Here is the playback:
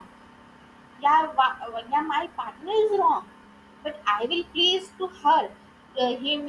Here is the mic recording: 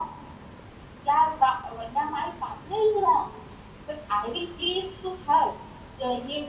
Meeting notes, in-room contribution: none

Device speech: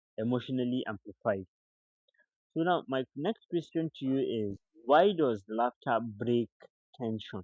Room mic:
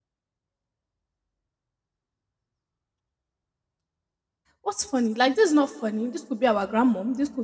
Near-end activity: present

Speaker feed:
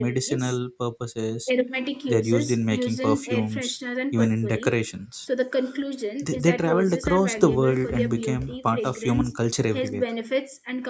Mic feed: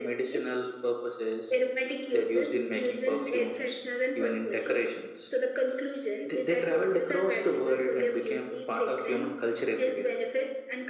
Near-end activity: none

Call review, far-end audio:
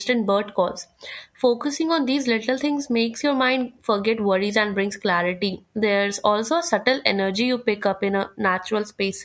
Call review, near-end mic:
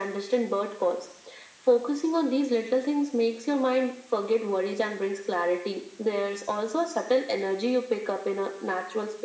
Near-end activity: none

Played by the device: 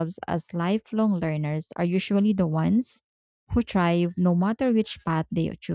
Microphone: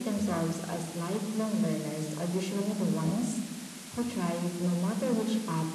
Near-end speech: none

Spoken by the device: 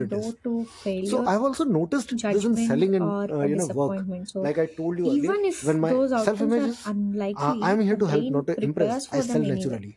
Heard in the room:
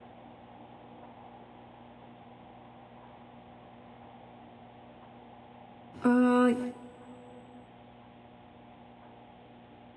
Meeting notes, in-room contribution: present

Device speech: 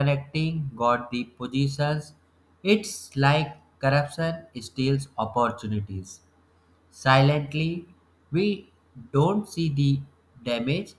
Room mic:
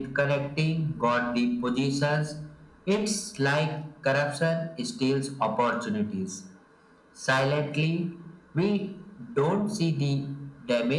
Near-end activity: none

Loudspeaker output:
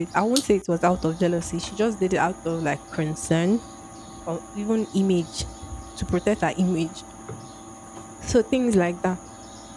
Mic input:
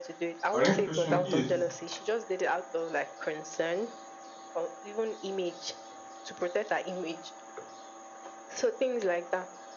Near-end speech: present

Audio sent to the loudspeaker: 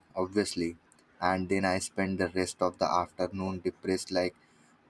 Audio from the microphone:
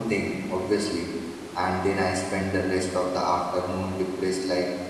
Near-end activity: none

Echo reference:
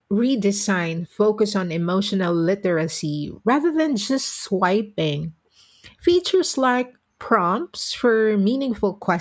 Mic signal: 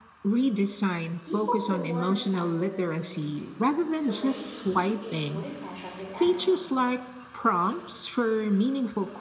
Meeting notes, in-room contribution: present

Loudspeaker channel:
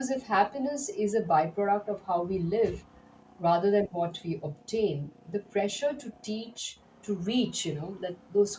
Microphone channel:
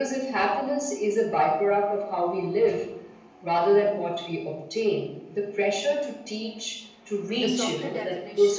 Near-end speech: present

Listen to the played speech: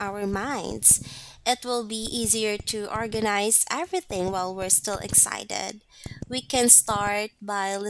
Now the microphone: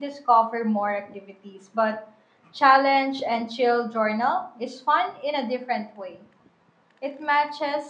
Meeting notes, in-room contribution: present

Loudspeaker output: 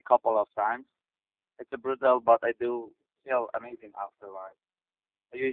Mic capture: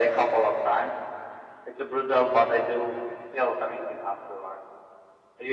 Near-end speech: none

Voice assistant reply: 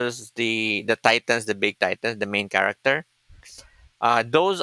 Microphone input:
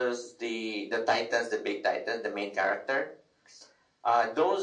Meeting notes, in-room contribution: none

